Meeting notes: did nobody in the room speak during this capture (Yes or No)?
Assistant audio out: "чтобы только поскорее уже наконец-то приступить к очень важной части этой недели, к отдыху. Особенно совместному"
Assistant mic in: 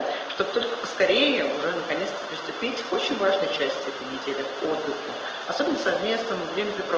Yes